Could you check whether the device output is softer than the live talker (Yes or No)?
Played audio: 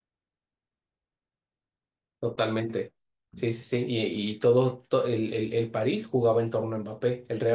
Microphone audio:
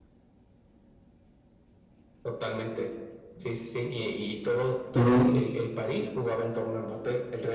Yes